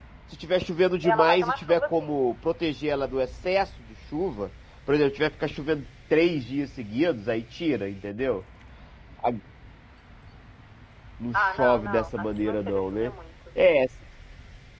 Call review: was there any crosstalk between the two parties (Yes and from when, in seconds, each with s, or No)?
Yes, from 1.0 s